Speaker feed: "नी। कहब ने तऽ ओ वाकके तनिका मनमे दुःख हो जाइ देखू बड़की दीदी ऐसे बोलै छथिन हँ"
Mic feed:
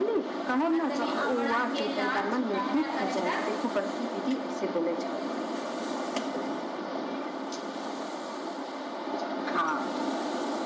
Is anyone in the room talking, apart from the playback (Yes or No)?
Yes